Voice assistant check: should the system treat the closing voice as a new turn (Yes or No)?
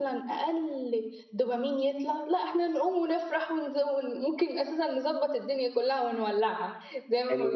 Yes